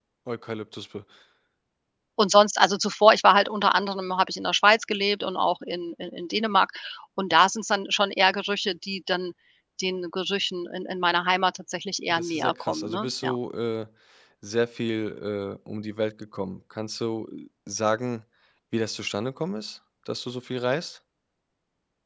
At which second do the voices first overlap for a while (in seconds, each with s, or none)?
12.1 s